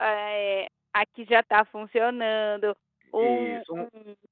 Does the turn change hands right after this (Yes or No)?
No